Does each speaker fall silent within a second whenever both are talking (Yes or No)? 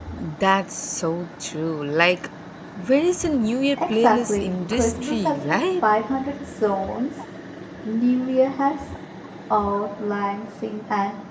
No